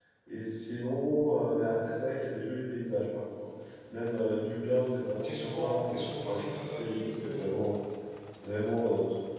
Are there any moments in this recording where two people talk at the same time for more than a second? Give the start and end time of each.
5.2-7.6

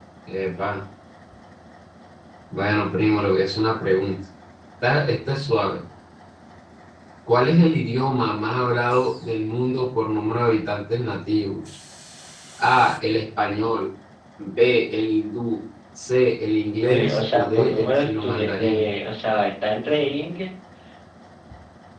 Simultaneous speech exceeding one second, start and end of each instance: 16.8-18.9

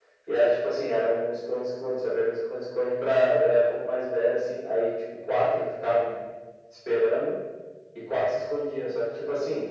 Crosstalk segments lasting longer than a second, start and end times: none

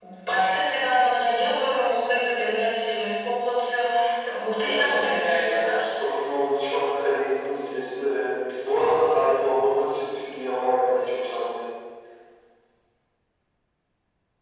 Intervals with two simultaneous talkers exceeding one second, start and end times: 4.6-5.8

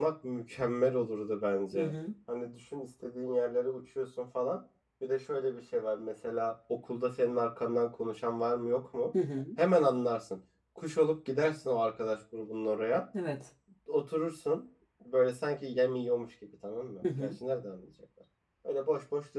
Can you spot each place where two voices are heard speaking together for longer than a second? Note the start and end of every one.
none

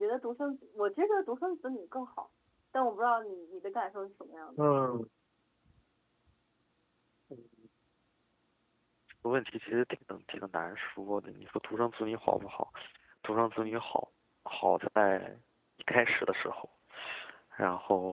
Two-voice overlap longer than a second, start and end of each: none

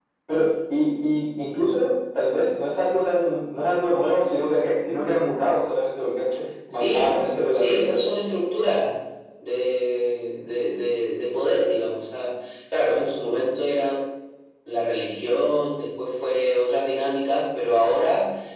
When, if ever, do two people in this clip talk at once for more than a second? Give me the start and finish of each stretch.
6.7-8.0

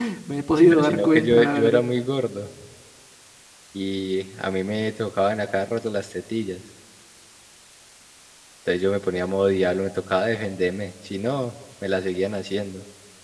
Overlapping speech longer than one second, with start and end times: 0.6-1.8

